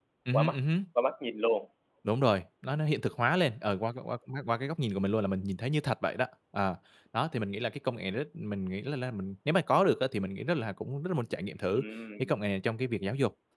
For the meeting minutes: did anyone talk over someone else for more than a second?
No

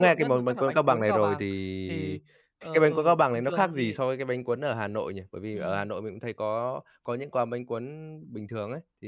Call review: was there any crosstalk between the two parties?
Yes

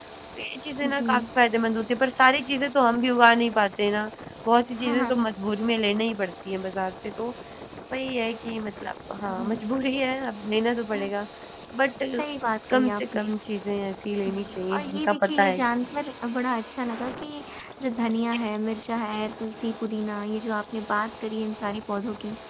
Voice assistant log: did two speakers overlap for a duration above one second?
Yes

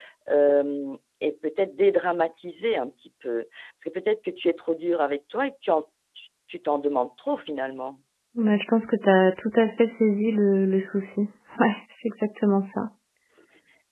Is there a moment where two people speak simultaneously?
No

